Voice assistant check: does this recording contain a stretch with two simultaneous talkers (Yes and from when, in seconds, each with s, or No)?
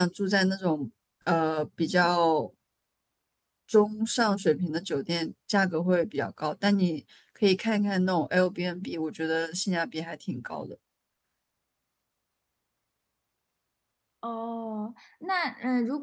No